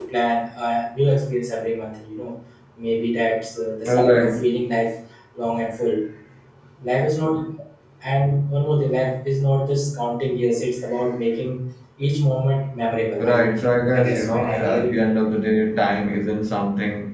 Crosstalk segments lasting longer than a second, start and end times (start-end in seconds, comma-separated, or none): 13.2-15.2